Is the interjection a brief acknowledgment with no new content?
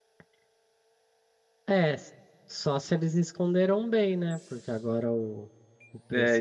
Yes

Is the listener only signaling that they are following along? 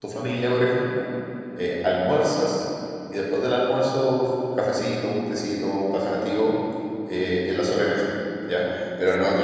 Yes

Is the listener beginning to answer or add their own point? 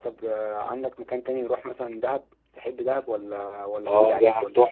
Yes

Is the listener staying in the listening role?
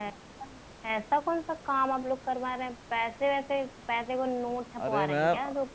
No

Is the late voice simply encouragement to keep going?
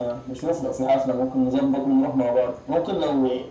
Yes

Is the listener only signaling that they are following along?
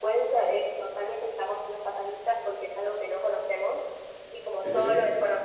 Yes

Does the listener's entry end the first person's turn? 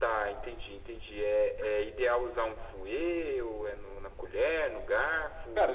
Yes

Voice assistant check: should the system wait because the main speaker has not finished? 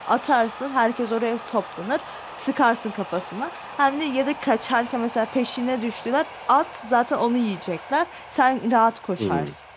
No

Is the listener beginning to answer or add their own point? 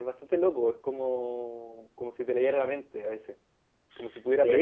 No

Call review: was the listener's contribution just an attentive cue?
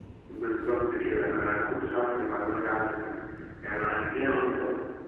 No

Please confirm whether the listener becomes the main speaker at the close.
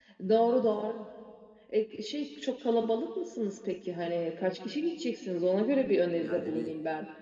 Yes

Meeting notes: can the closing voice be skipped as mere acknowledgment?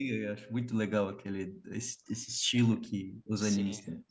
No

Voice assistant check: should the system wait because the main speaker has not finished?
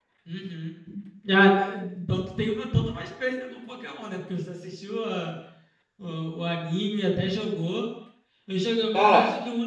Yes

